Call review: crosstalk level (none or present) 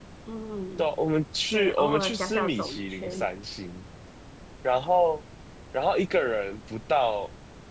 present